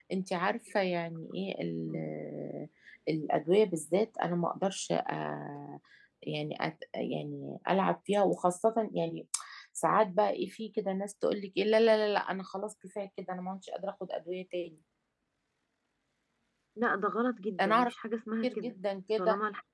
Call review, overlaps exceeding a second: none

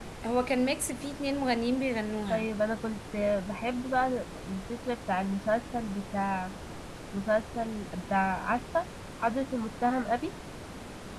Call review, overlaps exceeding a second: none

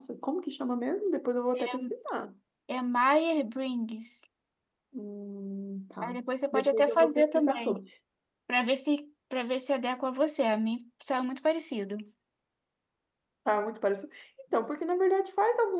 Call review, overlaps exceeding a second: present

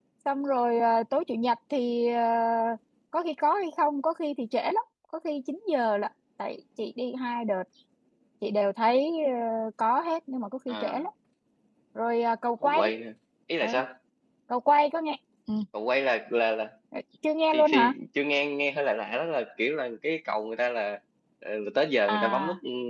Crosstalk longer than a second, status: none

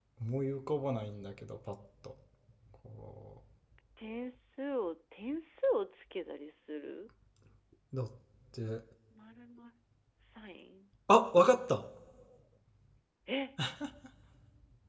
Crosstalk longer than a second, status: none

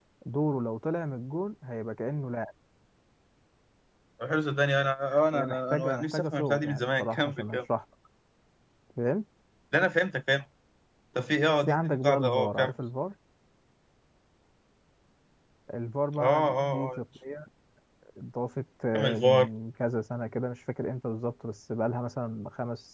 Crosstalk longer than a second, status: present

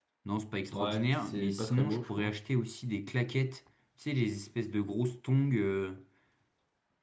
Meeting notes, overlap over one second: present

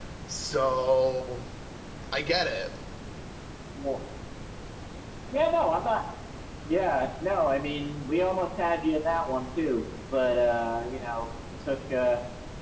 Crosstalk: none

